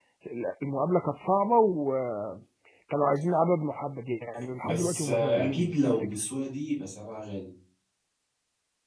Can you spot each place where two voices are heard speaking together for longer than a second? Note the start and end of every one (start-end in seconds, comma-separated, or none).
4.6-6.1